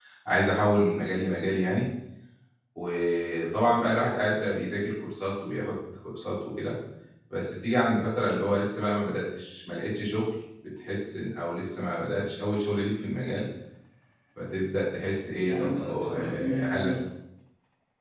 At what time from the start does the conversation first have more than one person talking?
15.4 s

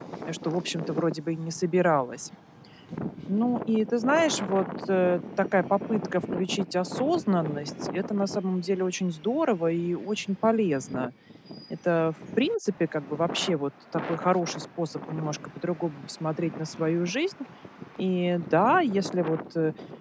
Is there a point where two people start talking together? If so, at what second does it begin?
none

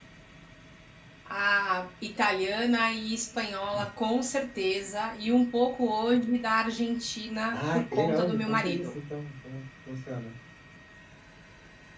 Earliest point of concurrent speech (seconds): 7.5 s

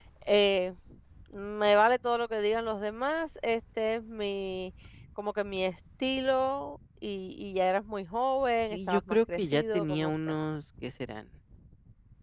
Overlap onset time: 8.7 s

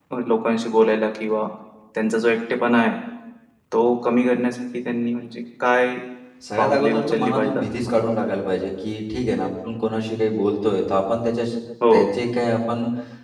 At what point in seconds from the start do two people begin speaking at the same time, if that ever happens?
6.6 s

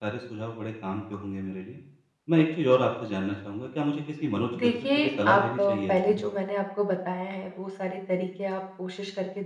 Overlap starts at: 4.5 s

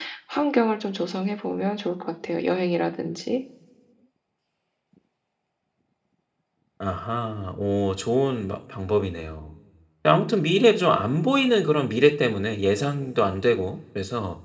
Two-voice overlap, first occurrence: none

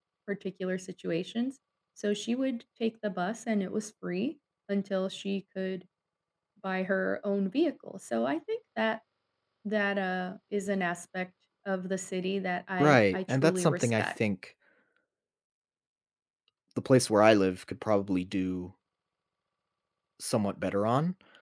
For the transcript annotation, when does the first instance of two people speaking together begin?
12.8 s

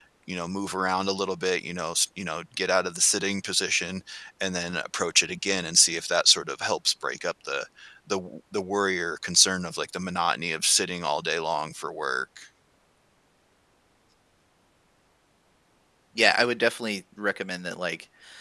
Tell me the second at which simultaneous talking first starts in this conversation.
none

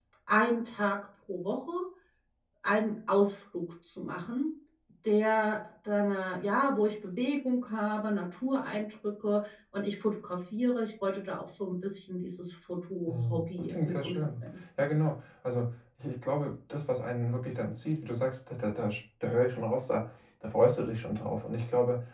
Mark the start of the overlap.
13.1 s

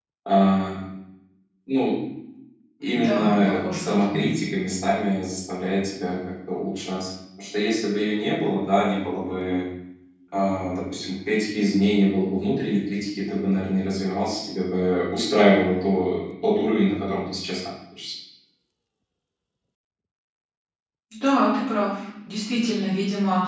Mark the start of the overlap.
2.9 s

